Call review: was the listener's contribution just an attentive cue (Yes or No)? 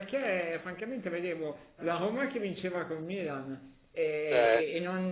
Yes